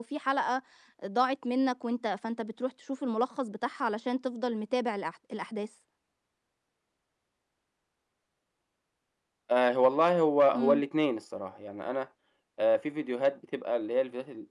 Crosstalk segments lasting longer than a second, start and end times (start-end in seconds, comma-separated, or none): none